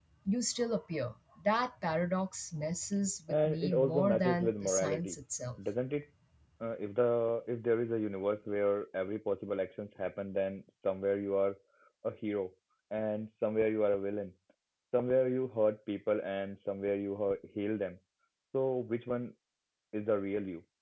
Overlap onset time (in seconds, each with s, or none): 3.3 s